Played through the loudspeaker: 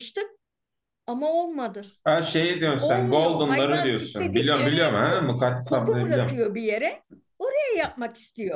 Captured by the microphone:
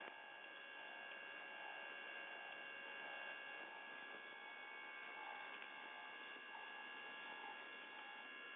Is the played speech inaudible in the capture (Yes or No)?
Yes